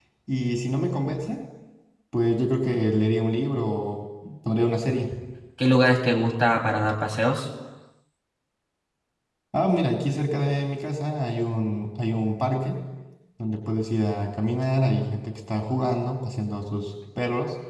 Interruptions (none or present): none